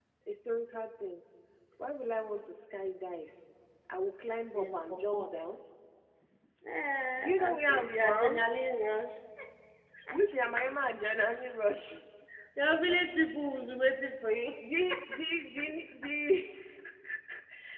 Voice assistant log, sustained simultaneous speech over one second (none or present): present